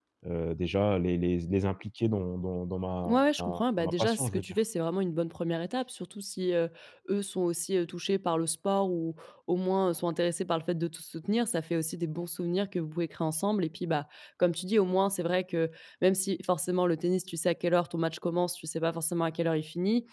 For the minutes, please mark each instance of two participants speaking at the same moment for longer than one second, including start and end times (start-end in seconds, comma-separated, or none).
3.1-4.5